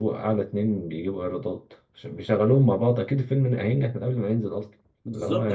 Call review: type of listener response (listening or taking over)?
taking over